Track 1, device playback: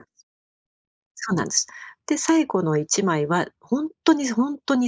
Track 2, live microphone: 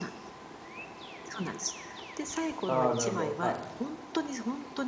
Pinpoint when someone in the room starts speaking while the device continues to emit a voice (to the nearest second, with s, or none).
3 s